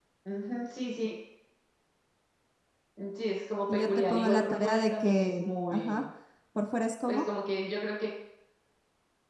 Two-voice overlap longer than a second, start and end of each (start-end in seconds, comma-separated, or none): 3.7-6.0